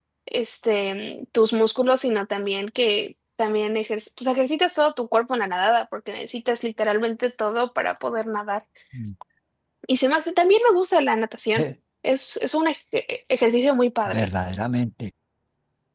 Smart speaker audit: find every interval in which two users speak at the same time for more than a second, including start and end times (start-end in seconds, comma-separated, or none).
none